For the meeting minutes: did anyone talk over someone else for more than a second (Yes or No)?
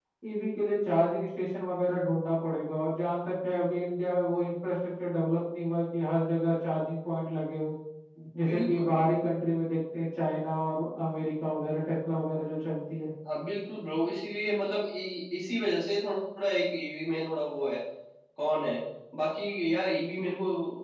No